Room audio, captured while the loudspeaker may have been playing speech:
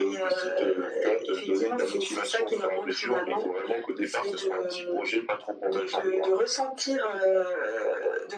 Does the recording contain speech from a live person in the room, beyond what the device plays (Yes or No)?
No